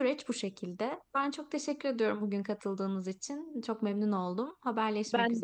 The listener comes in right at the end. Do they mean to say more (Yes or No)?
Yes